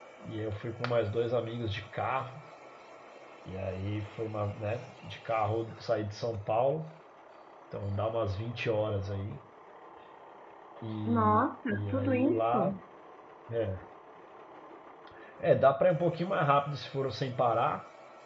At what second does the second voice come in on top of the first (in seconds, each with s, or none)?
11.0 s